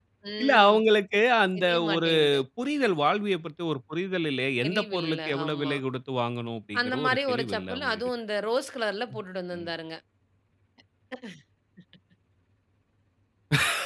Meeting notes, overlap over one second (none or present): present